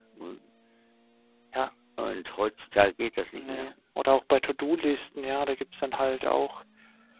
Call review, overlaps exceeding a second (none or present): none